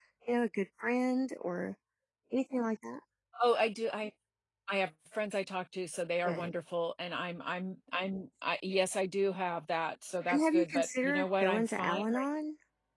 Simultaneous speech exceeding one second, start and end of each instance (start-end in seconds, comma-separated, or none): 10.3-12.2